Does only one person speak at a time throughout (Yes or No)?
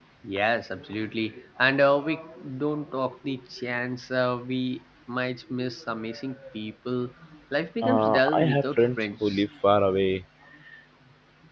No